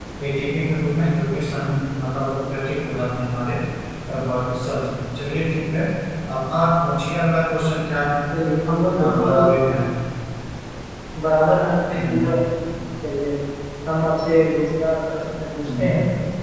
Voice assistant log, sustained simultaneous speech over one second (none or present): none